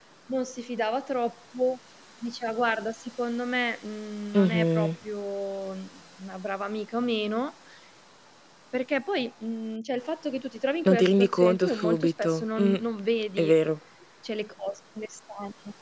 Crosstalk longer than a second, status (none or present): present